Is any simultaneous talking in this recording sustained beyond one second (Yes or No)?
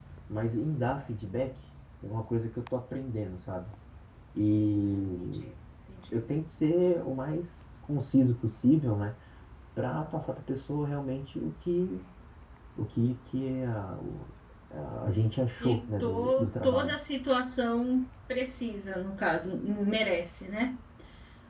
Yes